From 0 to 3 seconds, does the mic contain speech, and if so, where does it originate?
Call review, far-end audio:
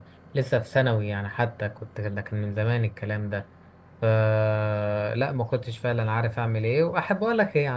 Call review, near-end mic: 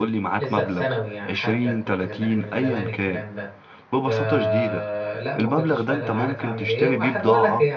both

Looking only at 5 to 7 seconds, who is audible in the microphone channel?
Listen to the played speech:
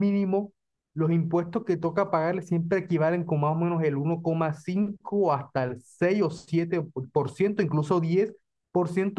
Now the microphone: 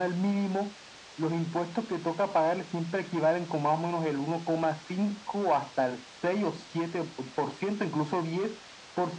echo only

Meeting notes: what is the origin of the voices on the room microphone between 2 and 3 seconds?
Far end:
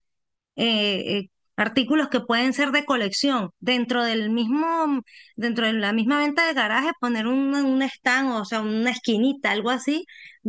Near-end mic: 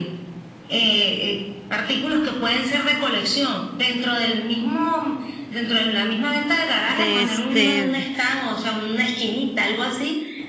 echo only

